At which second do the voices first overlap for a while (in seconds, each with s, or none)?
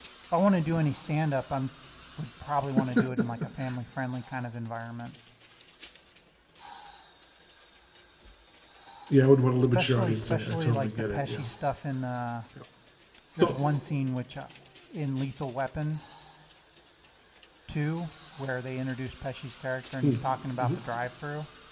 9.7 s